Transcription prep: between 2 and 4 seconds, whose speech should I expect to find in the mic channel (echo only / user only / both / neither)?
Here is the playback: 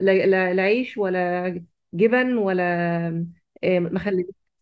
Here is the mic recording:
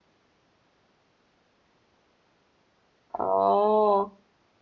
user only